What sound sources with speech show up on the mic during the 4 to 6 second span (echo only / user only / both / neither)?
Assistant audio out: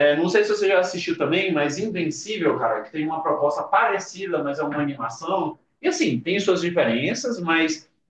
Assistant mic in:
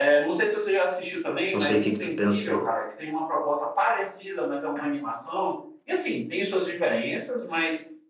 echo only